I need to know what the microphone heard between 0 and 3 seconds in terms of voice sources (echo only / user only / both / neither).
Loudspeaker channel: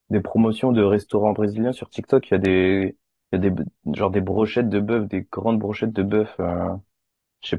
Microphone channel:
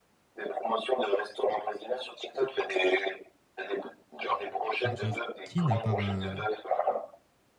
echo only